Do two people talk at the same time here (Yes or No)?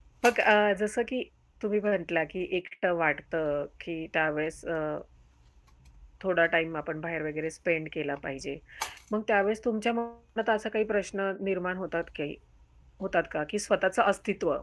No